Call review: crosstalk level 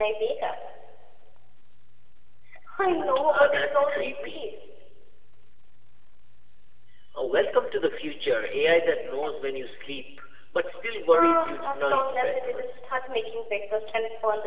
present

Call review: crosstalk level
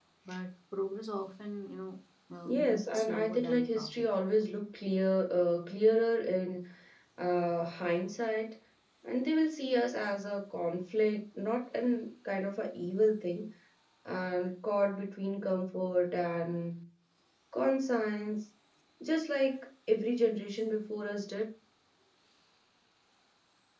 present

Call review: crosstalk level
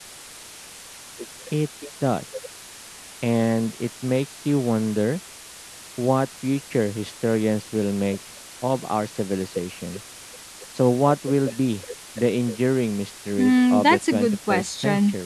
present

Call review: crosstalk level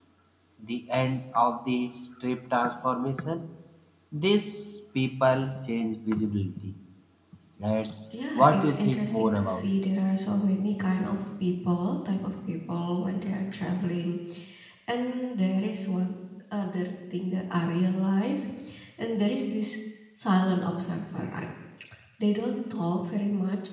present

